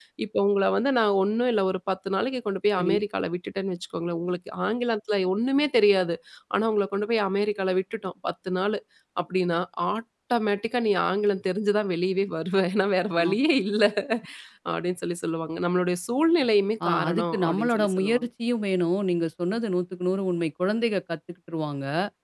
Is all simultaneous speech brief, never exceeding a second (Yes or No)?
No